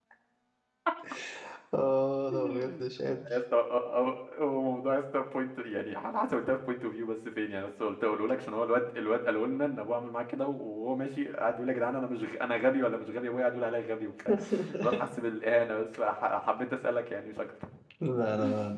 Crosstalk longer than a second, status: none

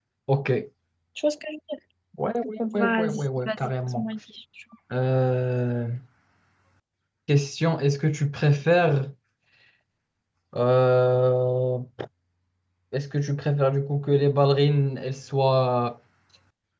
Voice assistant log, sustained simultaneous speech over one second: present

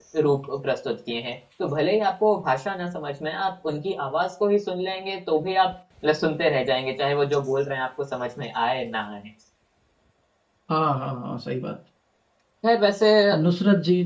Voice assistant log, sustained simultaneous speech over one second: none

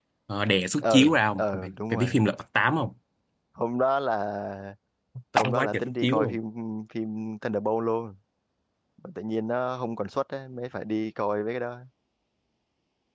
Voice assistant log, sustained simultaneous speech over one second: present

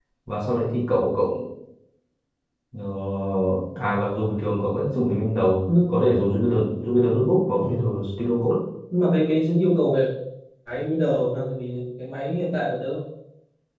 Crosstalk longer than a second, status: none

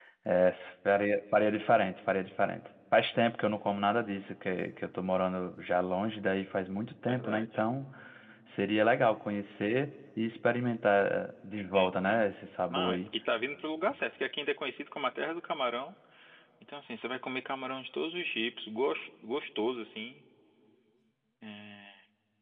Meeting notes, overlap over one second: none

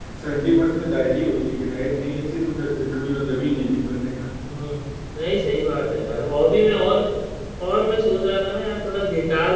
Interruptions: none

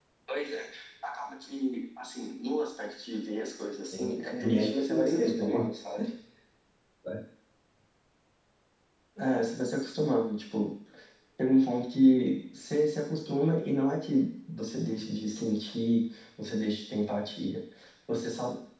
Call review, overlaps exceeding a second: present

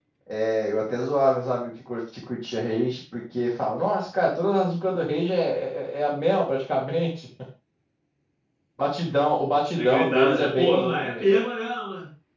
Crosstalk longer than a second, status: present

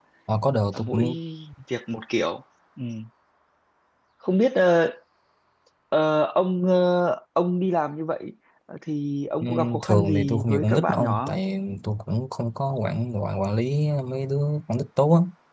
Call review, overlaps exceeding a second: present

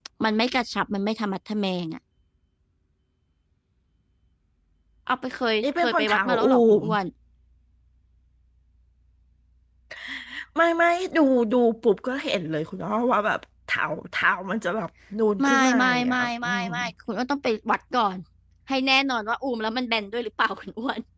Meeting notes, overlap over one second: present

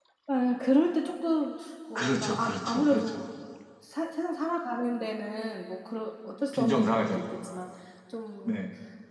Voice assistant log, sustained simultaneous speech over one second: present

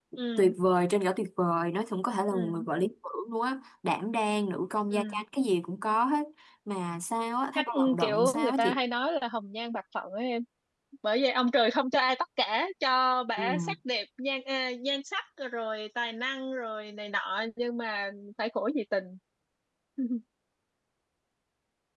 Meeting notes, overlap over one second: present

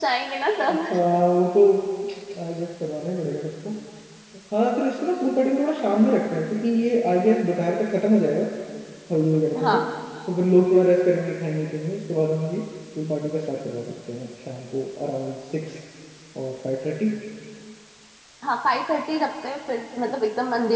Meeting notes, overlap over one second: none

